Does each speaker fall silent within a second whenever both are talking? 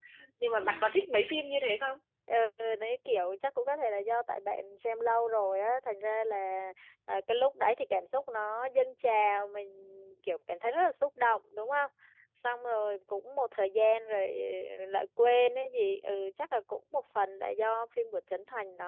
Yes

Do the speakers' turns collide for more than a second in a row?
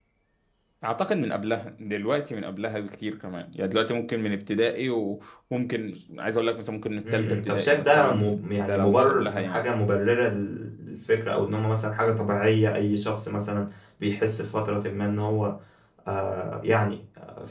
Yes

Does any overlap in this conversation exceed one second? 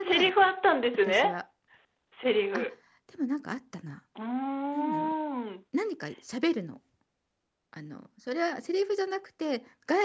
No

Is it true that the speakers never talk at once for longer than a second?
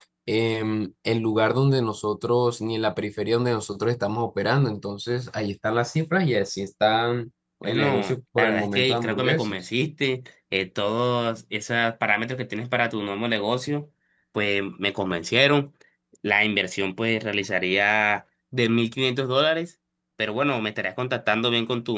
No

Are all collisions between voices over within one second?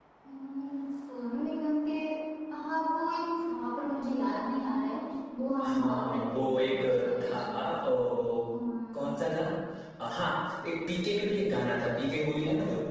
No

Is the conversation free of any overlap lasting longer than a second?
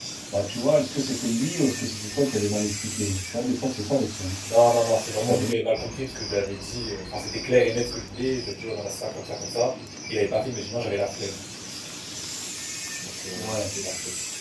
Yes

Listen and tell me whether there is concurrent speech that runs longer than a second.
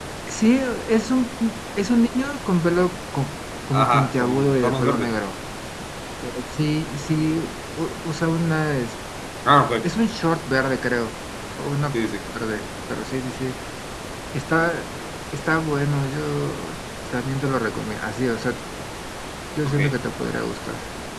Yes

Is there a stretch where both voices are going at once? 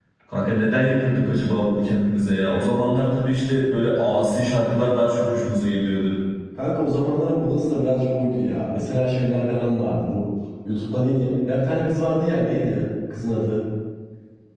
No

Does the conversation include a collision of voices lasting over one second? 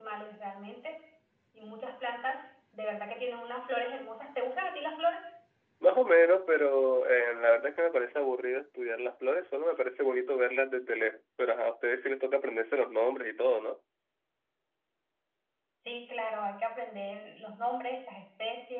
No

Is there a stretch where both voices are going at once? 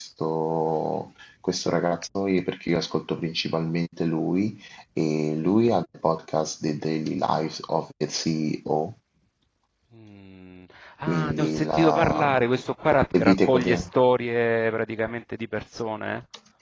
Yes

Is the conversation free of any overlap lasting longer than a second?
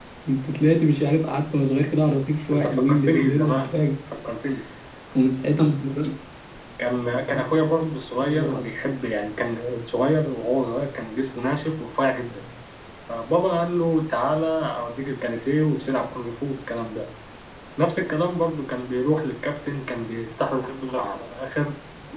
No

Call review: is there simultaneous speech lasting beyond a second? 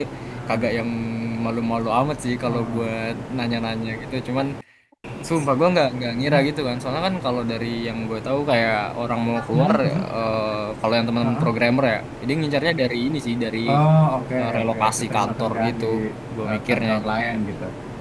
Yes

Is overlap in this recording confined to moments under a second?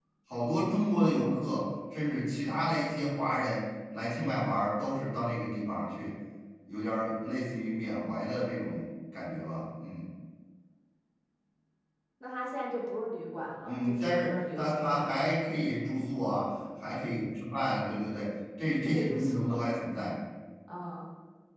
No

